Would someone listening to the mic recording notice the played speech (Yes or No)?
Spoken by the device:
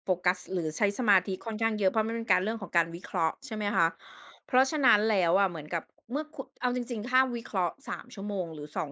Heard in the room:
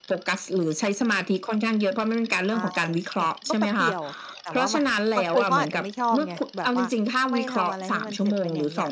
Yes